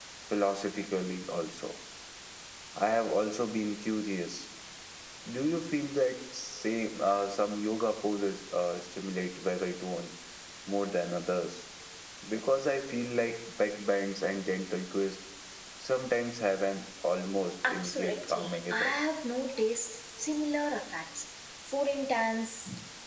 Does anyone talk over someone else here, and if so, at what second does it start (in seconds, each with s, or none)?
17.6 s